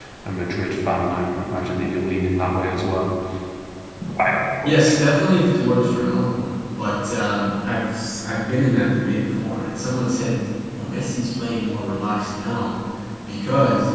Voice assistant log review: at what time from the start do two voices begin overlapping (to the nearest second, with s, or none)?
none